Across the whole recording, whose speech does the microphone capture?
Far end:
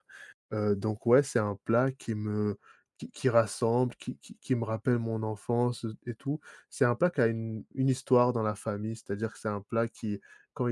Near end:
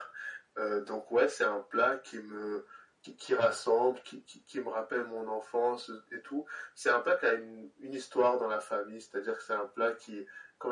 echo only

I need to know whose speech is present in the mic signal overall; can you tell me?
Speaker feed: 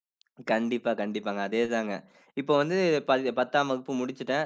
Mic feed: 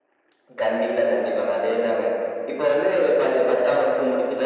echo only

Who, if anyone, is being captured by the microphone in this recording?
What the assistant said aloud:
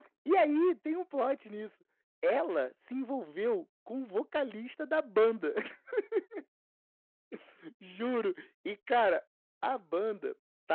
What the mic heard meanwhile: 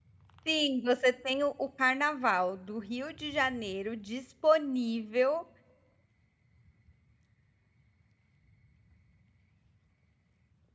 user only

